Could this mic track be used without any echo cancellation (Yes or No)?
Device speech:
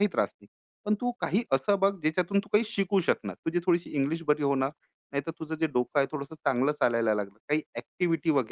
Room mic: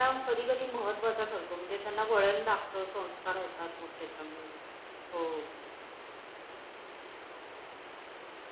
Yes